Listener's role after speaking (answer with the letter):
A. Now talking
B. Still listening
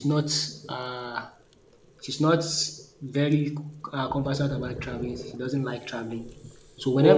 B